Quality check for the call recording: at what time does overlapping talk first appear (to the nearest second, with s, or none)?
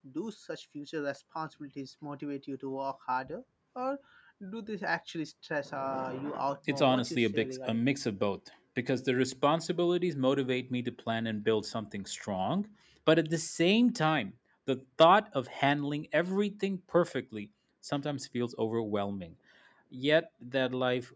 7 s